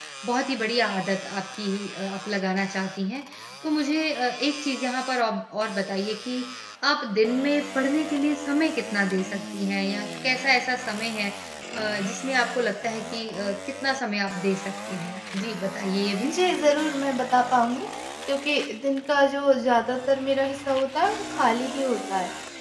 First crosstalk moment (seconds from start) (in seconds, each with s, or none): none